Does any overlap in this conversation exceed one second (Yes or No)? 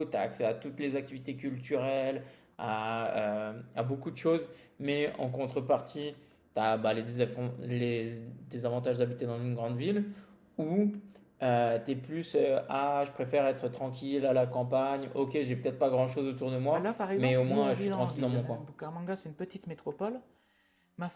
Yes